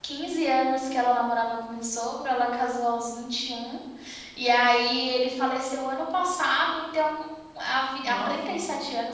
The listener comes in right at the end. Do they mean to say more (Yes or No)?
No